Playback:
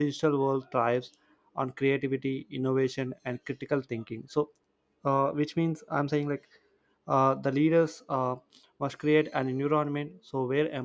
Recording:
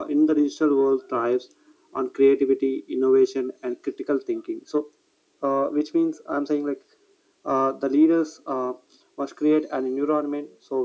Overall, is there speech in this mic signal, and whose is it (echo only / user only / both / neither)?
echo only